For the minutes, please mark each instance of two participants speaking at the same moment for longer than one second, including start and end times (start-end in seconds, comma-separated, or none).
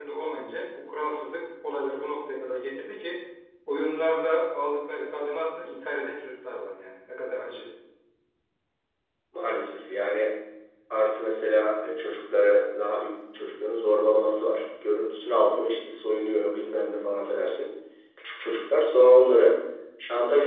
none